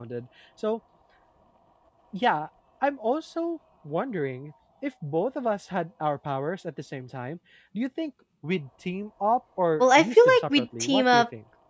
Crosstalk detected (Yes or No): Yes